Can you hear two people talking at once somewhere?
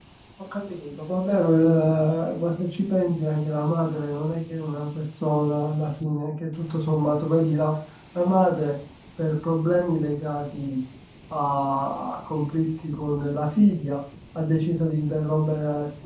No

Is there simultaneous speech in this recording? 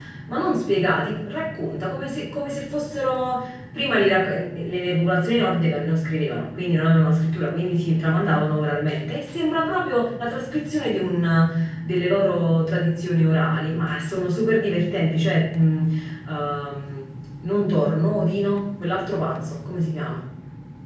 No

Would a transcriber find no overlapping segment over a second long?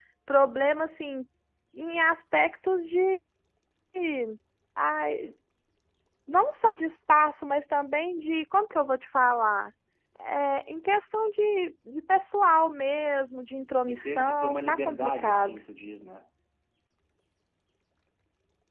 No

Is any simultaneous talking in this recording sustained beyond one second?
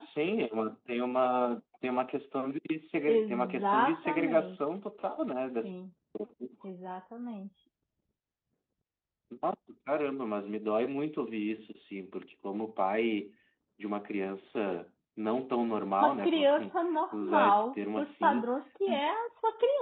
Yes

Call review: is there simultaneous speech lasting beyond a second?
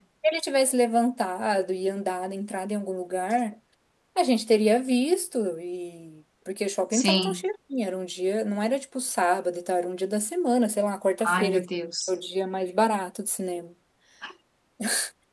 No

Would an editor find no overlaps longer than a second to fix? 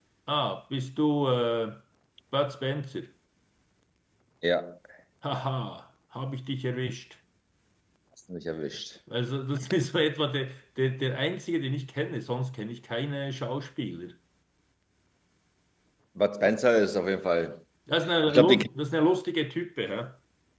Yes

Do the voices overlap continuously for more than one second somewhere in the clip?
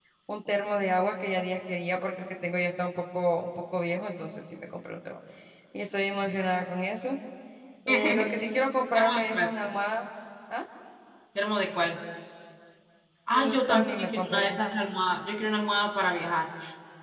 Yes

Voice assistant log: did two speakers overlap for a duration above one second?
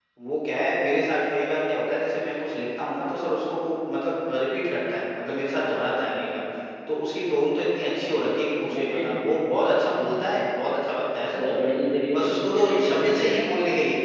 Yes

